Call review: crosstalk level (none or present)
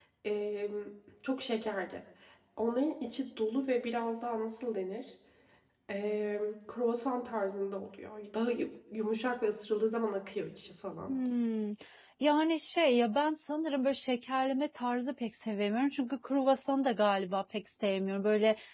none